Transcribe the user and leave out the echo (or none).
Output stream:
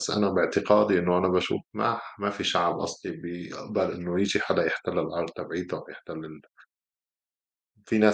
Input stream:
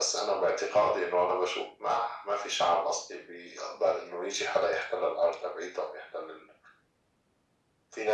none